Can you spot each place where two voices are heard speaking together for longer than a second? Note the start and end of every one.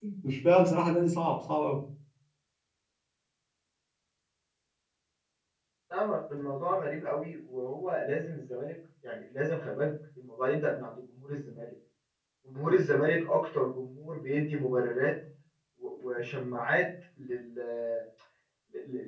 none

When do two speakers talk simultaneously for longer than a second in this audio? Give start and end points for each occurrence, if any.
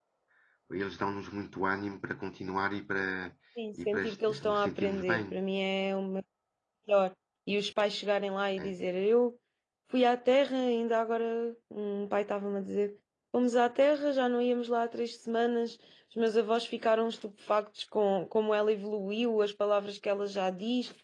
3.9-5.4

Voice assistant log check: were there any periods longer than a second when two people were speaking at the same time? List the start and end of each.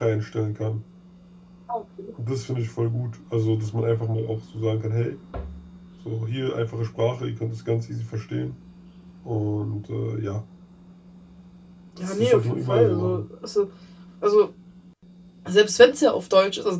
12.0-13.2

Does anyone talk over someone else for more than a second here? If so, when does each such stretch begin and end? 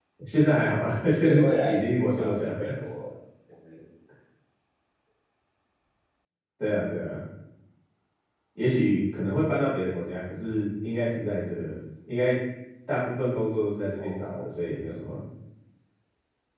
1.2-2.6

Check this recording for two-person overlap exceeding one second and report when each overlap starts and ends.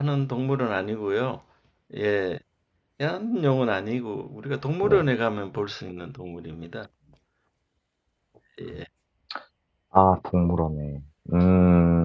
none

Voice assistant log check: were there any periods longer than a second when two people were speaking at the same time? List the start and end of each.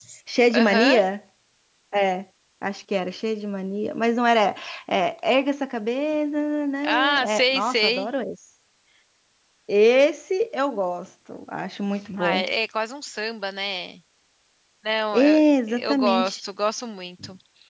6.8-8.1, 15.1-16.4

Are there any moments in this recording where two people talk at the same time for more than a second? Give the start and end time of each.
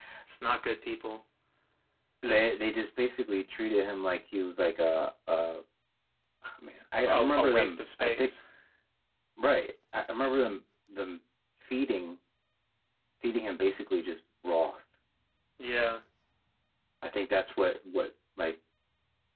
7.0-8.3

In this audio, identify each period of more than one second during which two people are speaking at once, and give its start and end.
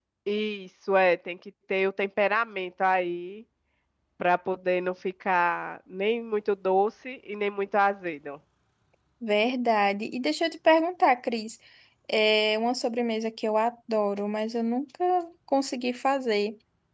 none

